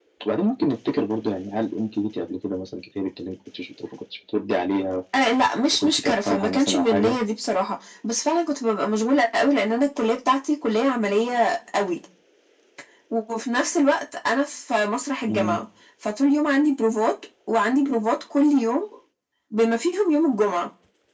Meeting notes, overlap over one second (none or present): present